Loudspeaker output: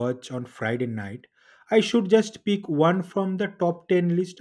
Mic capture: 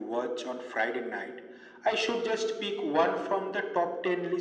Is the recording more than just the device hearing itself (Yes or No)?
No